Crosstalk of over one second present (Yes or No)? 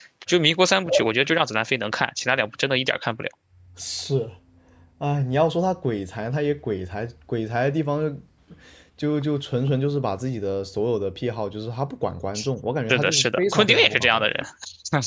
Yes